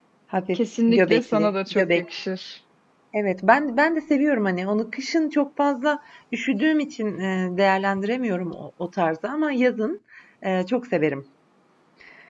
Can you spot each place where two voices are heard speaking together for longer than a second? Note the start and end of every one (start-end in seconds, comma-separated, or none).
0.5-2.0